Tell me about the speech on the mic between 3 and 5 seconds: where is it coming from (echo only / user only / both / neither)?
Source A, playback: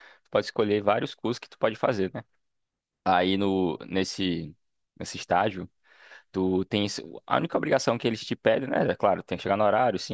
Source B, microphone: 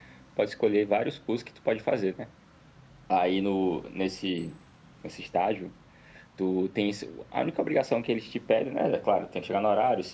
echo only